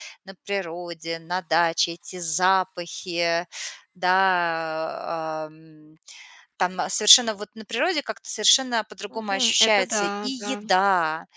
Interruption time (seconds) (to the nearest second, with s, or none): 9 s